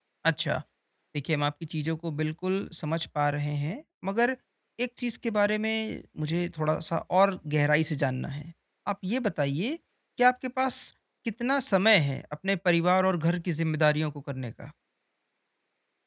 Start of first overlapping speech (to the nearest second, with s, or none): none